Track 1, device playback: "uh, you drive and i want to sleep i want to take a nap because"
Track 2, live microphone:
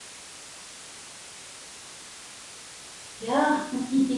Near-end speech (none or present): present